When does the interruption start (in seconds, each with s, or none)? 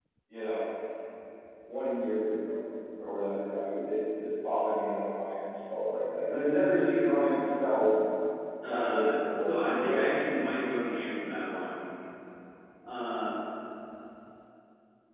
8.7 s